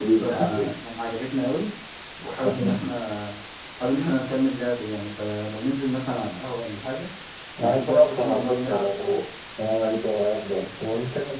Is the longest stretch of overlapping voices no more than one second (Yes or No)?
No